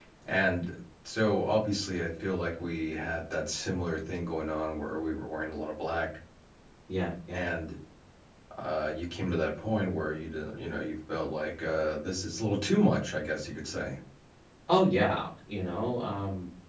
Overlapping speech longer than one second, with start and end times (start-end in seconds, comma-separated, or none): none